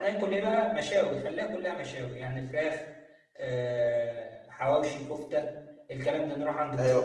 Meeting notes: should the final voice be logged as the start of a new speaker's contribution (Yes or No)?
No